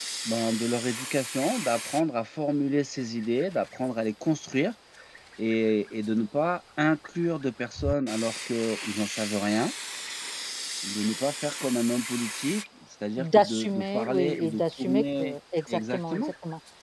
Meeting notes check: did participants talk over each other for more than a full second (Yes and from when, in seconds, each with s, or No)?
Yes, from 13.2 s